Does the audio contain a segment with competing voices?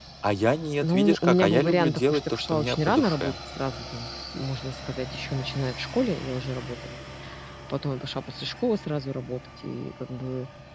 Yes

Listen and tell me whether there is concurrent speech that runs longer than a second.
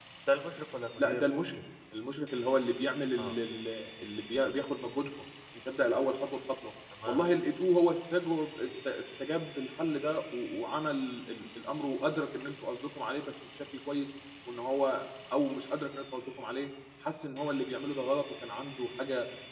No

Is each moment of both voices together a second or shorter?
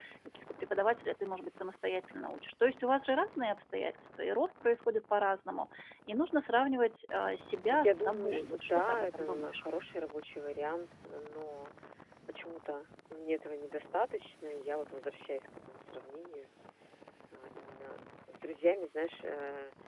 No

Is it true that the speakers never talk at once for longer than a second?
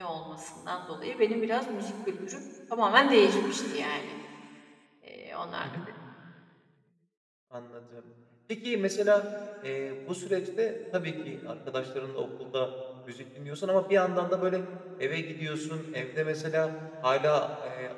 Yes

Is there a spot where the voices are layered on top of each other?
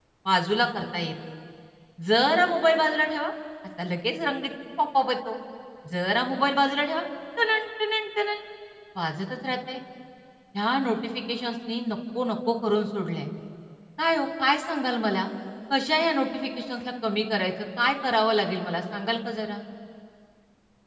No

